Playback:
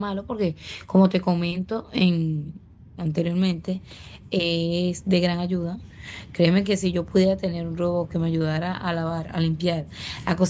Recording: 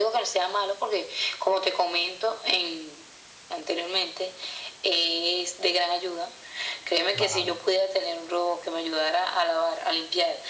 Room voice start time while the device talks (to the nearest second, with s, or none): 7 s